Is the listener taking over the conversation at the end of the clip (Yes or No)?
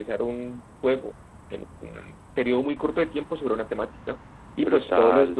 No